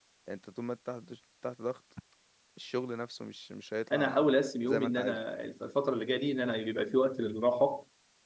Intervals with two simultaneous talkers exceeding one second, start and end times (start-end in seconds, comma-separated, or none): 3.9-5.2